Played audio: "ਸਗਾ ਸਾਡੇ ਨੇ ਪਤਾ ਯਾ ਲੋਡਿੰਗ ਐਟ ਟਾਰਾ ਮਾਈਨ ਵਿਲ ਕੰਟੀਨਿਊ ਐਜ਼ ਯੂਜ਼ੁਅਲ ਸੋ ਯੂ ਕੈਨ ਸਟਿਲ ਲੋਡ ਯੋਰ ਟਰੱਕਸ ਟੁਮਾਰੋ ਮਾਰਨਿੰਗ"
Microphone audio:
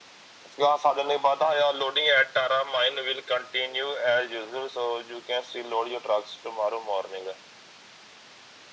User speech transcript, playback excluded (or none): none